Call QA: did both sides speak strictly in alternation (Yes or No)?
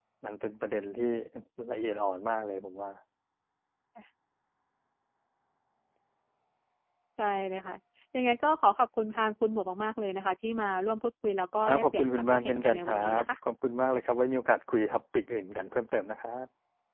No